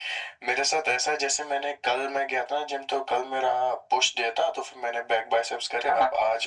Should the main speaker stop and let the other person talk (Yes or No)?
No